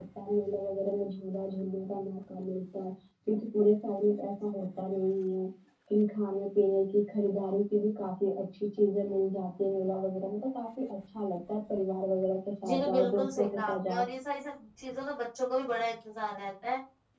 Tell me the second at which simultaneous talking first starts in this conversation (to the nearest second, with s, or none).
13 s